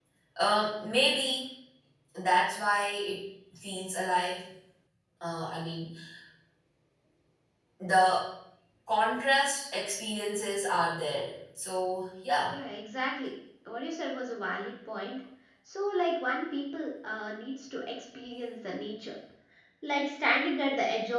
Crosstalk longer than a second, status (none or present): none